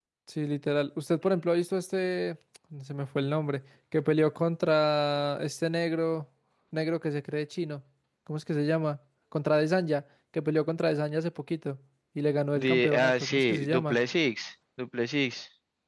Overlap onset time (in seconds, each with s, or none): 12.6 s